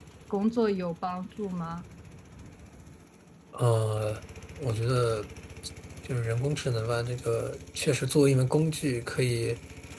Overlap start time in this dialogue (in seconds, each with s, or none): none